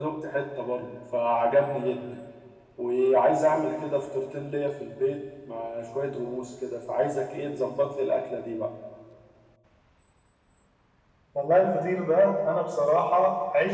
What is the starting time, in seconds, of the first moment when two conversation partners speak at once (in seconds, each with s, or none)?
none